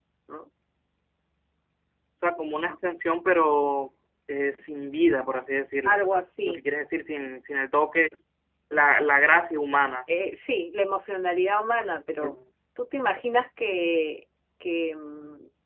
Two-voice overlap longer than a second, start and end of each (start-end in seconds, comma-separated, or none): none